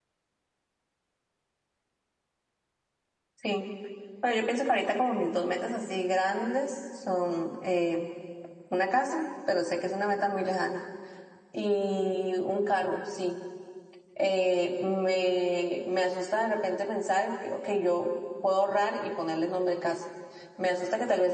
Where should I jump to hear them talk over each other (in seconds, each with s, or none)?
none